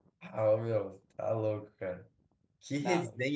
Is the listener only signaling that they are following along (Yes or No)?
Yes